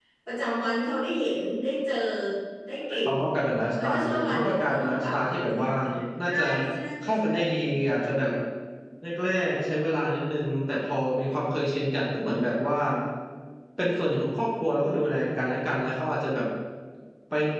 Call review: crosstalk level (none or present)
present